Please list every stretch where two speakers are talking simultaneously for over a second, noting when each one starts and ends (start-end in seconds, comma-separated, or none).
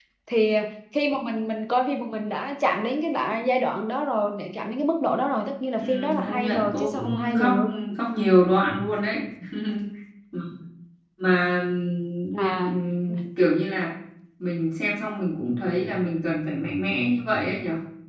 5.8-7.5